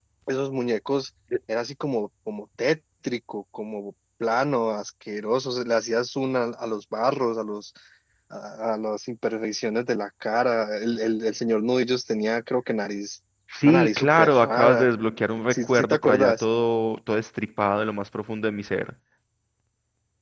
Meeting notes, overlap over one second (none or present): present